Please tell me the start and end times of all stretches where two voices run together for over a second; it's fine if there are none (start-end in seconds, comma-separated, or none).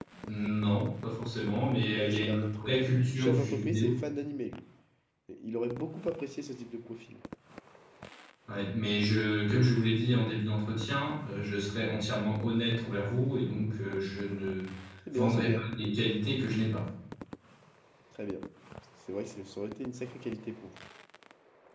1.8-4.0